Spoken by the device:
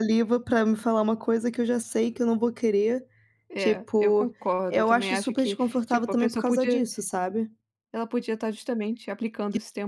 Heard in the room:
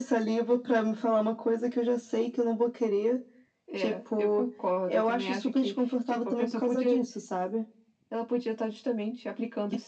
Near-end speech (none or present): none